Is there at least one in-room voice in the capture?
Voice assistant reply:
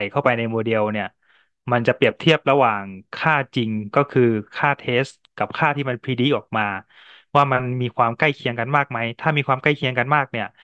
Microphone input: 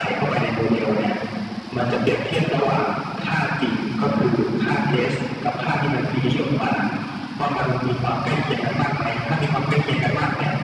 No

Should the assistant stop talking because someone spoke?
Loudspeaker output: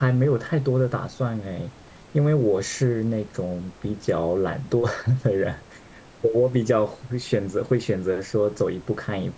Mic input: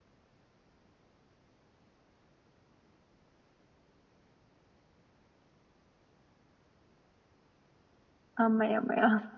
Yes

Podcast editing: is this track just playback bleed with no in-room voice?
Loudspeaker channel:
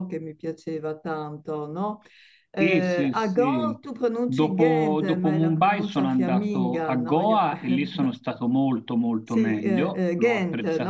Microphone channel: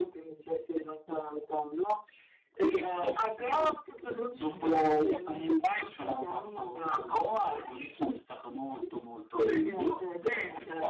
Yes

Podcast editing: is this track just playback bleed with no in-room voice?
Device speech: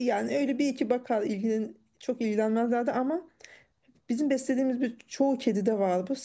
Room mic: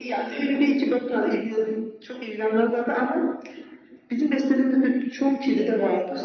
Yes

